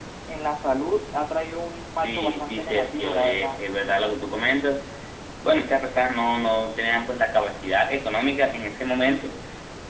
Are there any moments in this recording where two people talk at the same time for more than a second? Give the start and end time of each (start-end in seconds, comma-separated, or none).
2.0-3.6